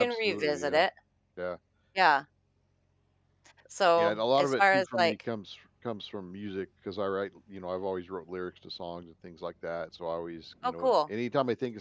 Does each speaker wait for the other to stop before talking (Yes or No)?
No